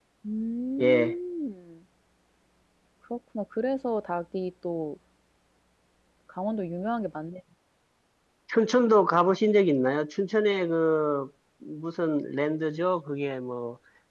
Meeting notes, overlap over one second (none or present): none